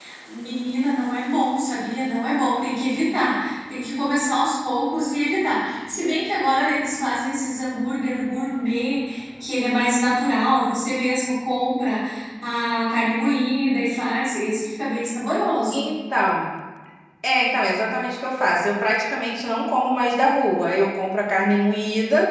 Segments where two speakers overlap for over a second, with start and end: none

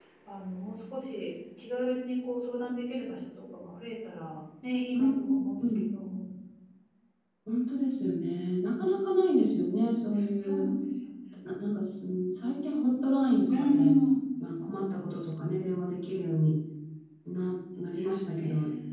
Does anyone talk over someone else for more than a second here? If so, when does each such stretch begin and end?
none

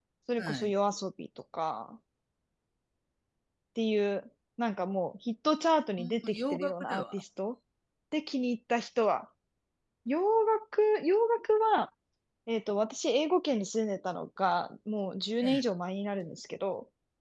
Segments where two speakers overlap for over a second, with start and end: 6.0-7.2

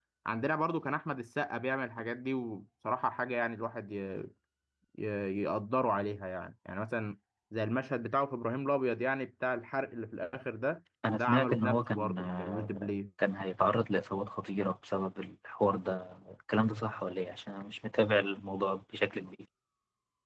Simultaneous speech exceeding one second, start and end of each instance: 11.1-12.9

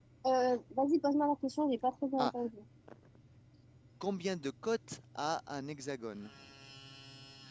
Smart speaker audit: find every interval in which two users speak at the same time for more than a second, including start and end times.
none

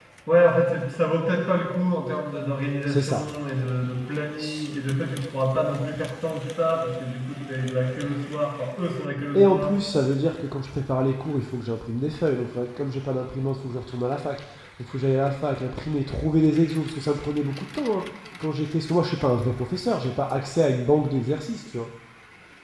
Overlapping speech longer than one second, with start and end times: none

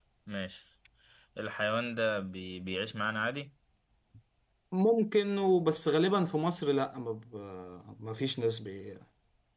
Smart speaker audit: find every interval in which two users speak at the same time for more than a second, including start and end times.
none

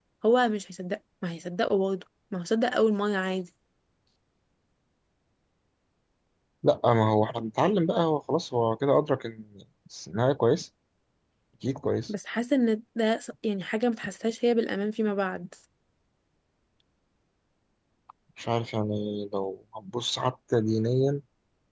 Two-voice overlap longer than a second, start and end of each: none

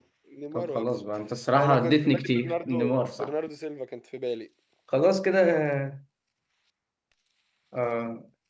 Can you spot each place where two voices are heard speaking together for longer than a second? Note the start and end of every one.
1.5-3.3

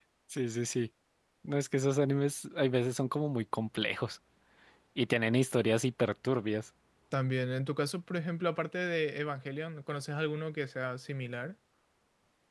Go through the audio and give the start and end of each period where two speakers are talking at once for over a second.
none

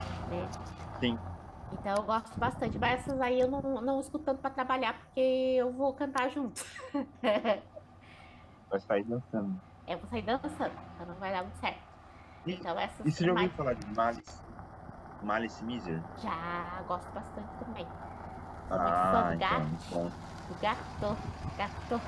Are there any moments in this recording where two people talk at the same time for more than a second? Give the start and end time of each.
18.7-20.0

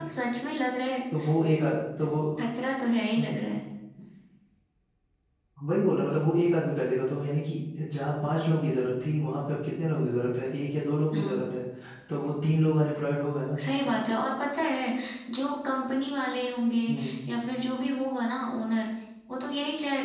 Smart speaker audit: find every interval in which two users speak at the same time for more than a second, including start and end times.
none

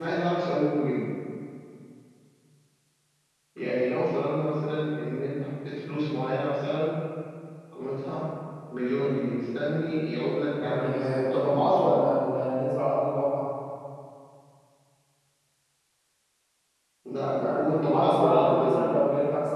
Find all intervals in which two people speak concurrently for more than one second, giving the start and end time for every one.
10.5-12.0, 17.4-19.0

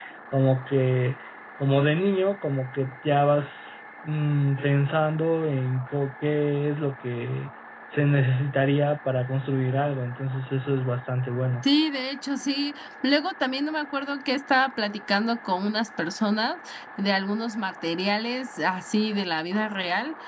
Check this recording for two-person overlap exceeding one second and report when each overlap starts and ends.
none

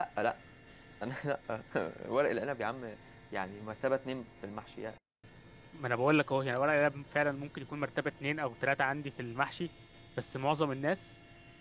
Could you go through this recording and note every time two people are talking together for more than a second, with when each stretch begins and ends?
none

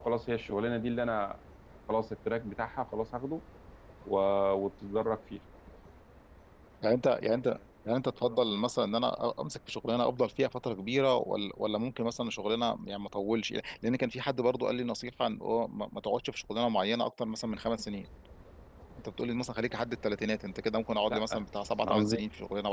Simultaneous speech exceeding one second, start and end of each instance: none

